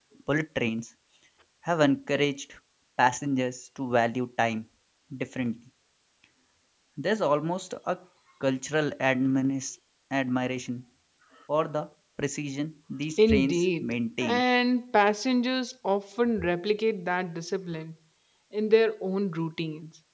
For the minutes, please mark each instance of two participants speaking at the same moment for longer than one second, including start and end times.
13.2-14.4

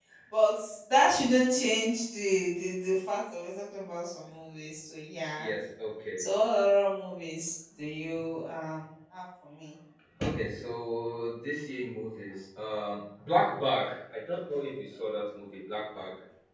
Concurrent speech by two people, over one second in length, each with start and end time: none

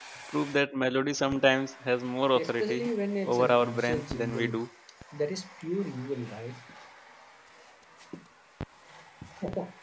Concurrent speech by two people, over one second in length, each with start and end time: 3.2-4.6

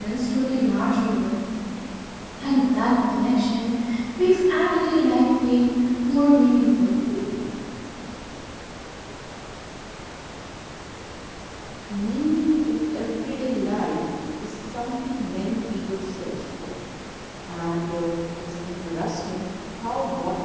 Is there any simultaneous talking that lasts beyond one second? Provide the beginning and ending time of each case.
none

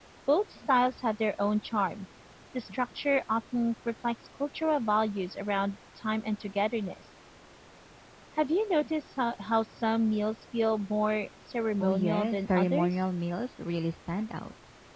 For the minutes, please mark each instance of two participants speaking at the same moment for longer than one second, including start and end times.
11.8-13.1

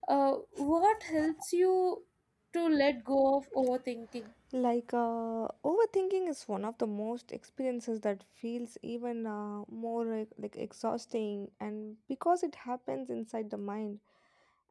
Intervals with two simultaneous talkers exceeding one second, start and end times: none

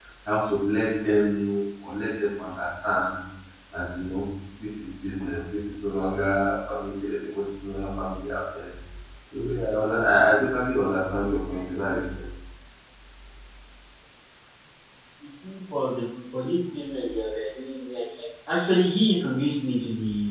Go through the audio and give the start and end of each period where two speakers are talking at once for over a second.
none

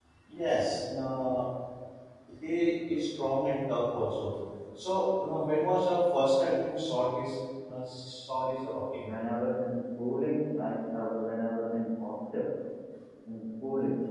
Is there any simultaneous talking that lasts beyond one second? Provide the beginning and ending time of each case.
none

